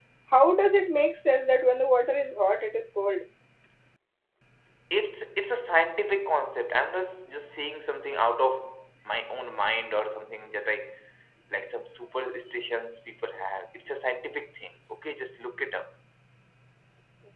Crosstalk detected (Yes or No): No